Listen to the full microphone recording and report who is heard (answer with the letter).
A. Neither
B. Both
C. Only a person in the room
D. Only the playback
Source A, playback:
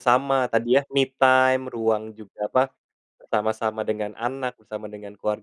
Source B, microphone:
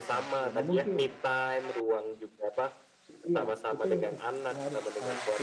B